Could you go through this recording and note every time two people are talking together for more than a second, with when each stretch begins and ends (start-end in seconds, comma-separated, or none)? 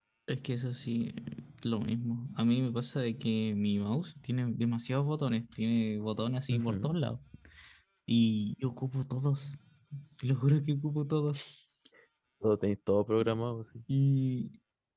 none